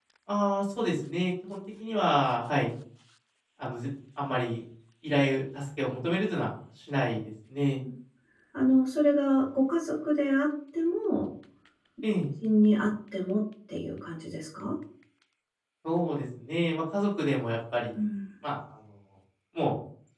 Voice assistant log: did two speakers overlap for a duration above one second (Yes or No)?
No